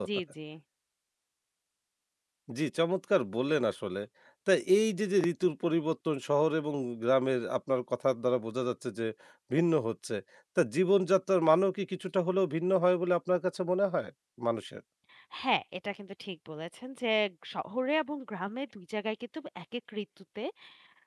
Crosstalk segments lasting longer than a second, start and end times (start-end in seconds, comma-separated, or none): none